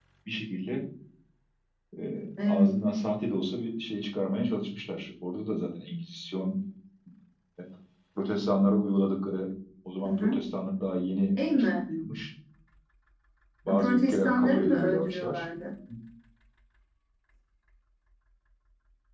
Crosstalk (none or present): present